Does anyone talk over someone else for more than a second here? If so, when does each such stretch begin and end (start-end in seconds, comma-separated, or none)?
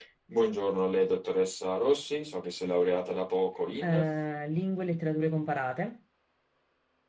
none